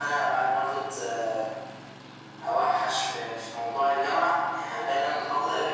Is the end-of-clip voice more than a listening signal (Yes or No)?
No